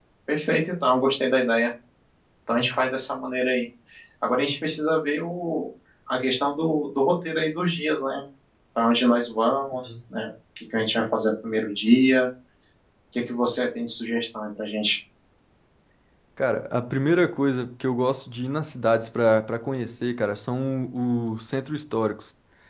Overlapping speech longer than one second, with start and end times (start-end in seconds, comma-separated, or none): none